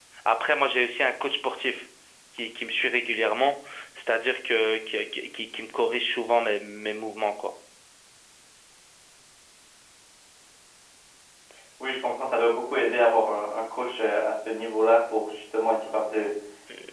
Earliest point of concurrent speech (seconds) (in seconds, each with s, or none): none